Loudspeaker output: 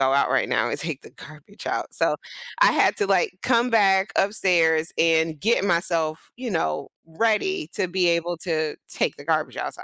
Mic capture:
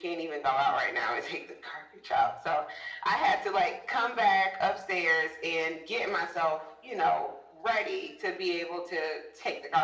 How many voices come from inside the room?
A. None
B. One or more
A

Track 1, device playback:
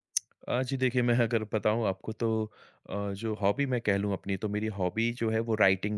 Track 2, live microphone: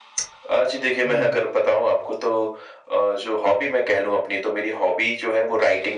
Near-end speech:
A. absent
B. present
B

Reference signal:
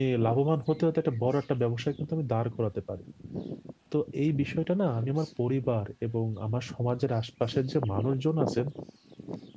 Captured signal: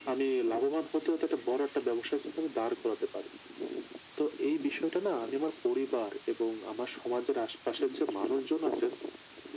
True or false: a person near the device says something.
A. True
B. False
B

